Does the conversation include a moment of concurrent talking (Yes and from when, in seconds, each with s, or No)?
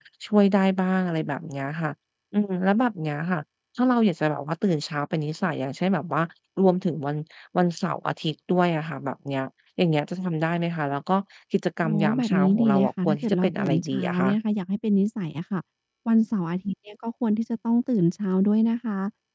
Yes, from 11.8 s